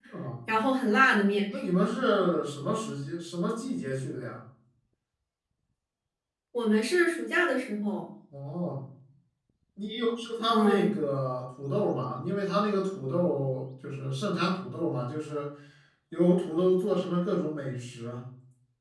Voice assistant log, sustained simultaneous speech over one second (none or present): none